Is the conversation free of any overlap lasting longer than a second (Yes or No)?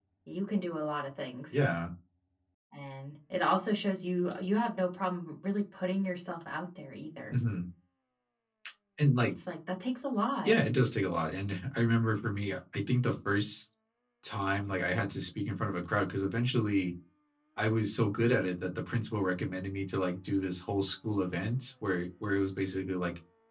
Yes